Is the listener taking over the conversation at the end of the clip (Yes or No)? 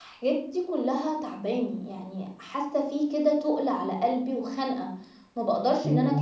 Yes